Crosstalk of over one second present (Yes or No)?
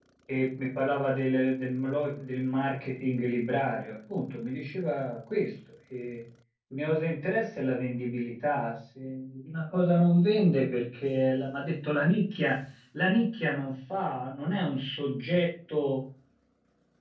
No